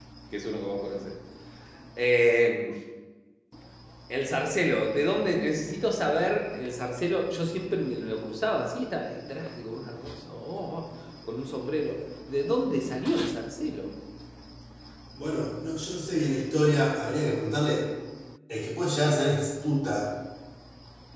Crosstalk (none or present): none